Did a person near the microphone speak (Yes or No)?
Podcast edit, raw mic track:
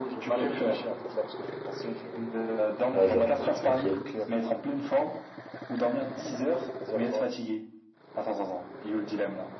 Yes